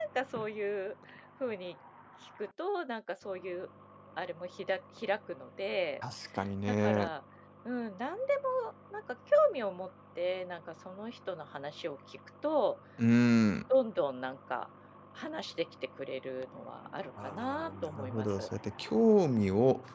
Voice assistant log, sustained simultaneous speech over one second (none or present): present